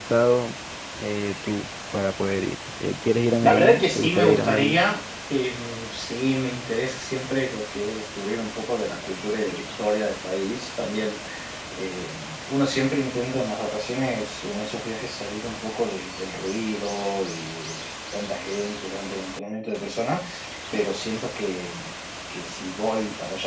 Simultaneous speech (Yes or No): Yes